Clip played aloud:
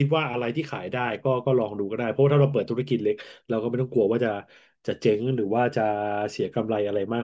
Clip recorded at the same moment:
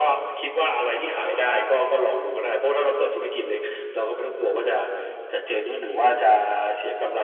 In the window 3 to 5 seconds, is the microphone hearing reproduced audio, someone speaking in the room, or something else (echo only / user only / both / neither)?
echo only